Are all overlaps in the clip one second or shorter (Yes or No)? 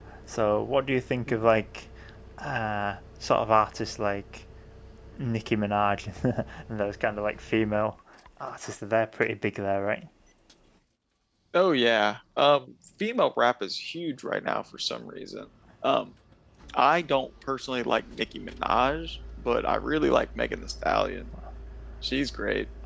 Yes